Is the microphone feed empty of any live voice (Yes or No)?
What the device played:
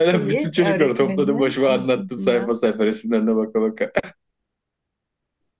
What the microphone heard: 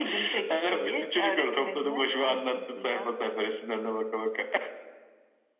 Yes